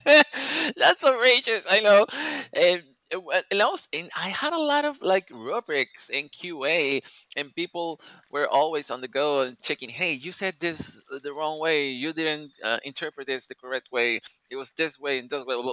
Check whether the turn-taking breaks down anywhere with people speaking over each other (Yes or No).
No